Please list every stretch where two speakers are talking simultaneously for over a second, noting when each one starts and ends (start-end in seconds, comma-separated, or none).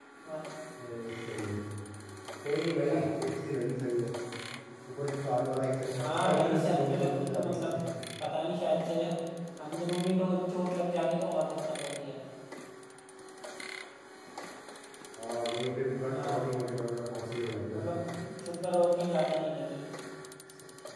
6.0-7.7